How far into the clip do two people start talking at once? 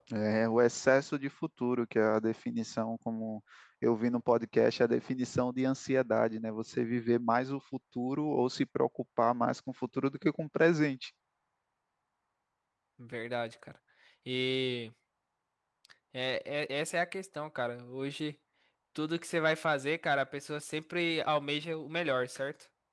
none

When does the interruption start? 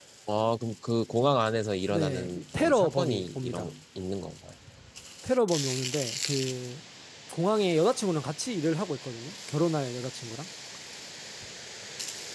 1.9 s

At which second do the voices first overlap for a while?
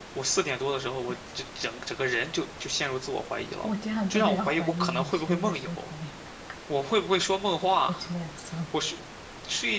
4.1 s

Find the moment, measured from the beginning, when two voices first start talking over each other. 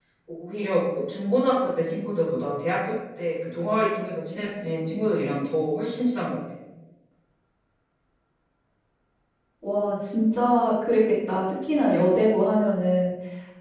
none

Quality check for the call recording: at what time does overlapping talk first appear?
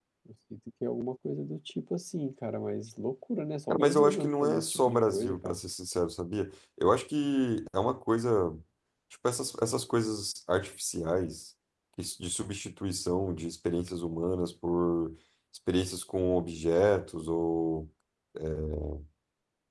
3.7 s

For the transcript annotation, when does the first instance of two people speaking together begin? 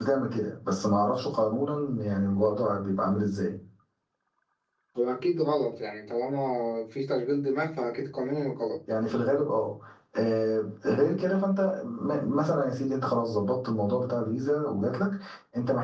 none

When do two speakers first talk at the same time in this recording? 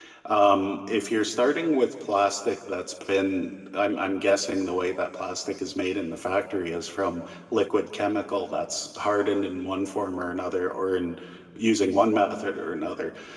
none

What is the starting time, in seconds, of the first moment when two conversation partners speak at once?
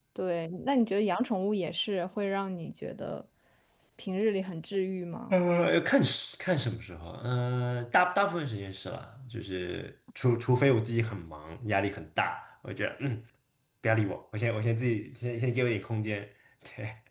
none

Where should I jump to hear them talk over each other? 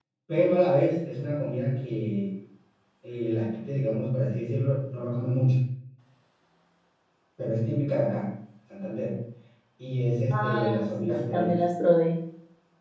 10.3 s

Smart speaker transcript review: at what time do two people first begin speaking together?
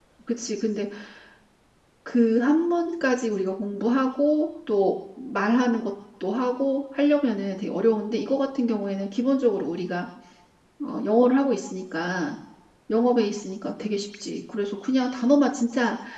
none

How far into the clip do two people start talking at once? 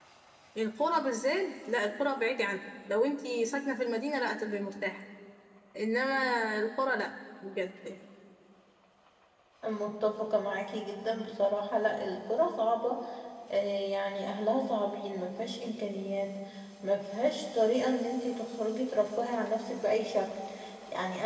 none

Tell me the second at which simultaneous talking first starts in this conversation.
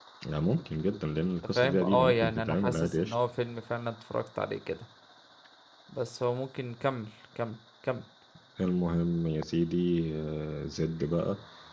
1.6 s

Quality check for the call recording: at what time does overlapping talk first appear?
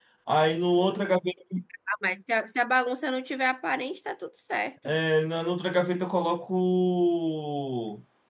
none

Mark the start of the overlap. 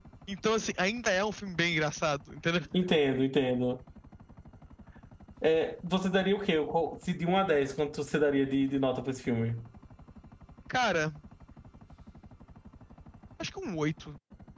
none

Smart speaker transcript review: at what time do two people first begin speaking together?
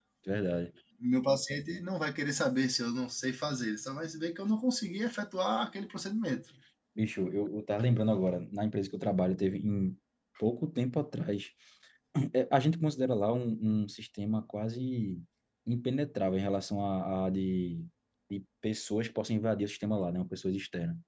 none

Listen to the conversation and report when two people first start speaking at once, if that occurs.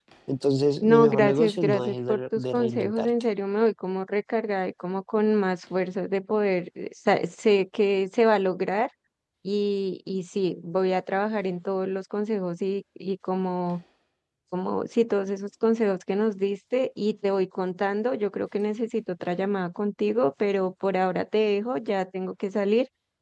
0.8 s

